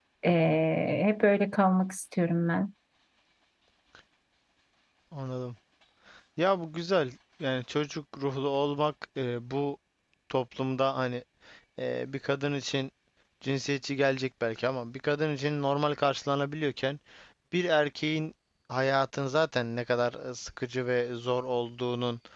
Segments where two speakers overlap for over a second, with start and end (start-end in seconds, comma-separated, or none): none